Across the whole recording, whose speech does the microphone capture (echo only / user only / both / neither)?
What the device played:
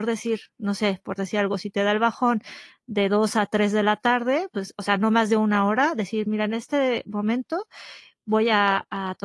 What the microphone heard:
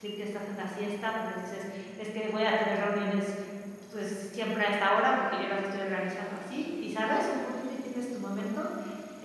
user only